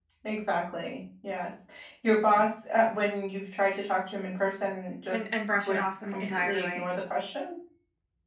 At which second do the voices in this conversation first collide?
5 s

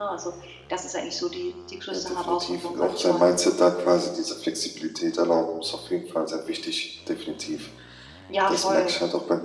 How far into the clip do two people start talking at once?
2 s

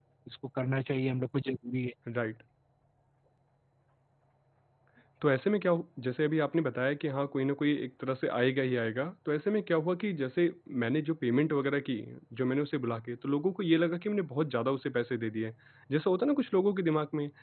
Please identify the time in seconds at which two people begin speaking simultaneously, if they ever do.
none

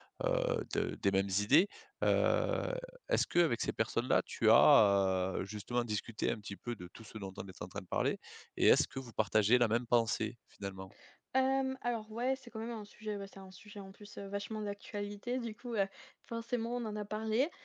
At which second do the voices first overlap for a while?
none

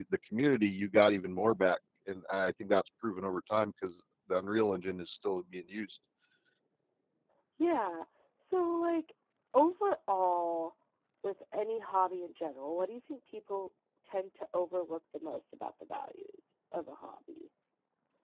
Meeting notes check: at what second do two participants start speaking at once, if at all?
none

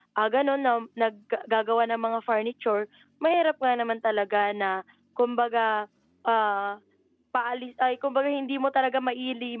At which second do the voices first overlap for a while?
none

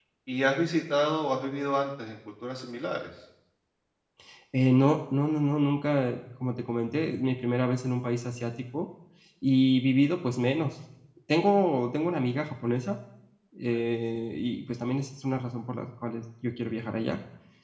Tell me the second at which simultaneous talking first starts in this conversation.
none

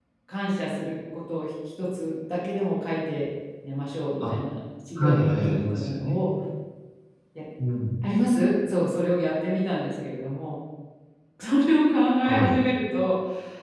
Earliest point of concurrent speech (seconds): 5 s

